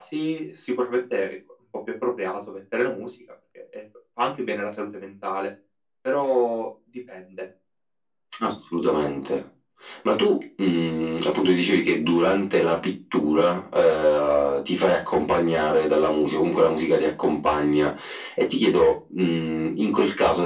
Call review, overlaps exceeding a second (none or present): none